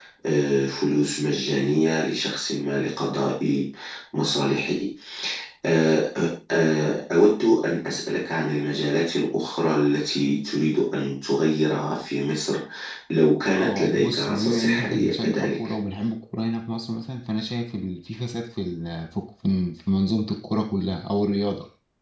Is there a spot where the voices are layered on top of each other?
Yes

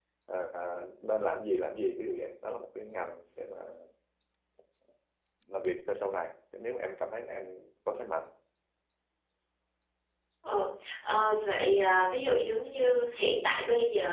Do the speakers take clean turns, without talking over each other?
Yes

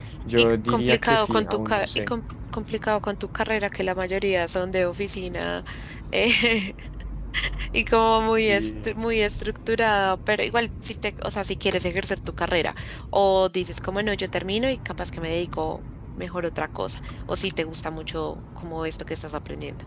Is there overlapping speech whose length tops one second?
Yes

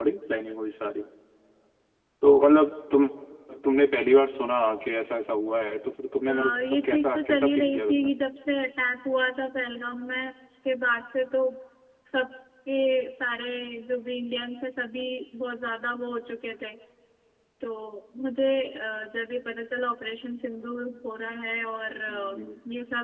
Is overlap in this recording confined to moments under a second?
No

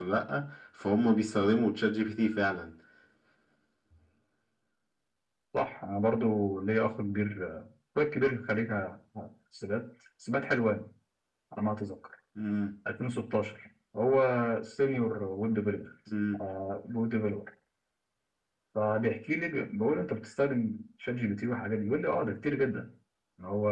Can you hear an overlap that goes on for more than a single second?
No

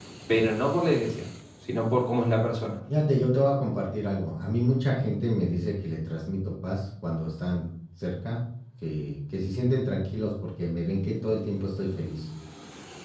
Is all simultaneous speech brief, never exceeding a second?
Yes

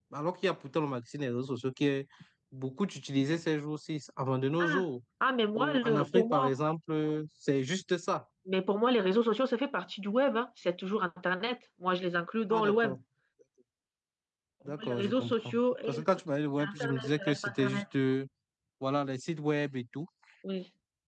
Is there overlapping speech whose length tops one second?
Yes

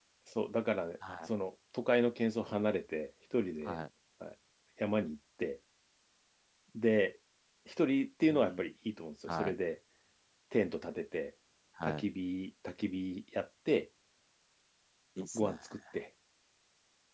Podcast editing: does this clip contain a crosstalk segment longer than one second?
No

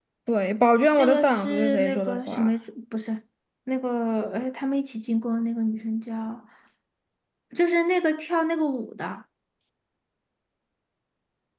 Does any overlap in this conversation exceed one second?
Yes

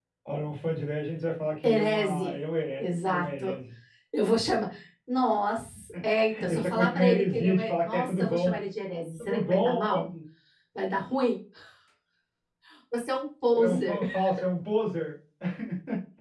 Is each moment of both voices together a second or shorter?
No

